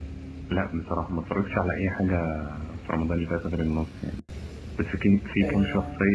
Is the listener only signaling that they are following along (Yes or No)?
Yes